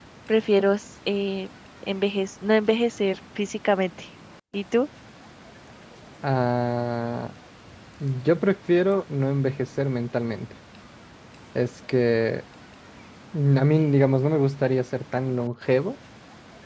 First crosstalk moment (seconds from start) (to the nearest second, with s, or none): none